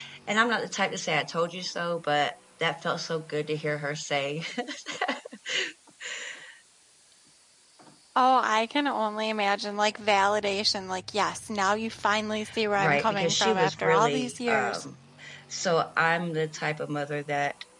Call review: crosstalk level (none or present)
present